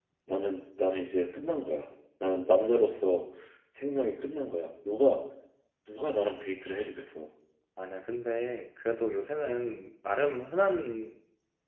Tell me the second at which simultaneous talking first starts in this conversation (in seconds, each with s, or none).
none